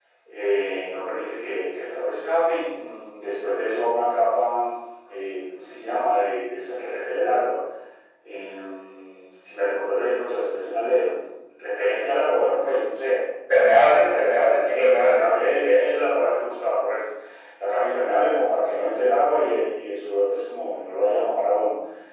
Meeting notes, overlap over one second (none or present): none